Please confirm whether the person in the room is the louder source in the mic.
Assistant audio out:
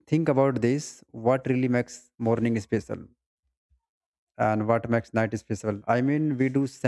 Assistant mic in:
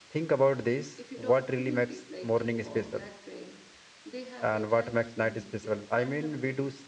No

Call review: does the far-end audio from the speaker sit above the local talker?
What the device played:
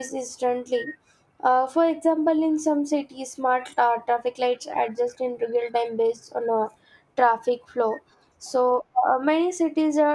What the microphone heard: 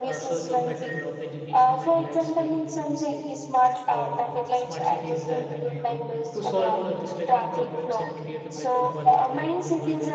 Yes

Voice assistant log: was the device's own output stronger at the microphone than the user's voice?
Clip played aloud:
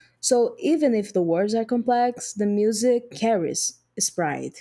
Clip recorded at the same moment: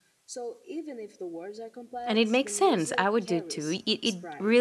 No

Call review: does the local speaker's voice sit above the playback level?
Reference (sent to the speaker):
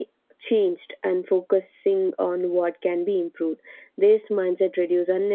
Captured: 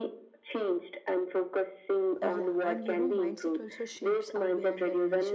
No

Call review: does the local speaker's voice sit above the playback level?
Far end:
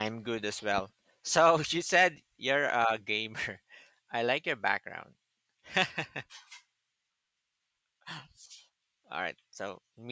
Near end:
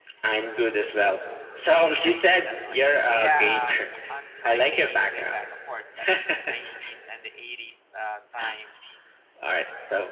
No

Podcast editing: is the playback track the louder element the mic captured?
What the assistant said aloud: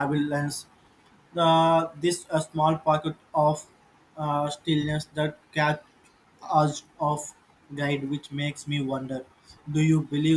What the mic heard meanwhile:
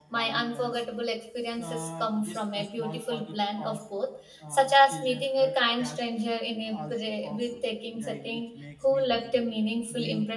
No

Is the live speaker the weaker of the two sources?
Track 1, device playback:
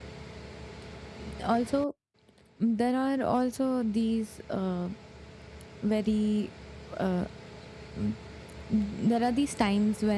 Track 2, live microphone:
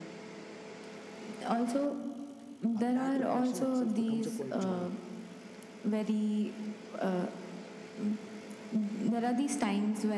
Yes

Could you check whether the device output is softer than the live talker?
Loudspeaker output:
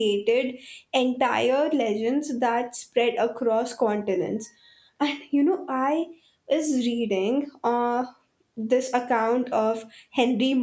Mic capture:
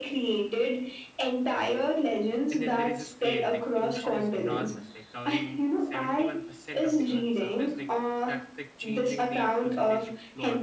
No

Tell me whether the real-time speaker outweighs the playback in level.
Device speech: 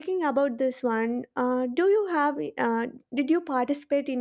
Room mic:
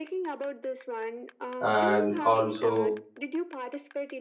Yes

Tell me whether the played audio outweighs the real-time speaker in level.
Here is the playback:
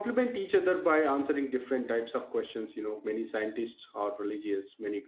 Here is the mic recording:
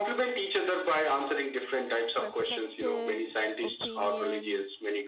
Yes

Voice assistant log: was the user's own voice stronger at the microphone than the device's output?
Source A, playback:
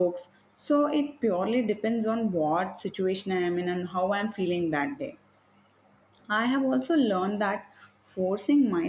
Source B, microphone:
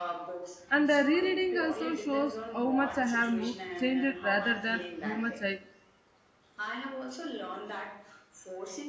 Yes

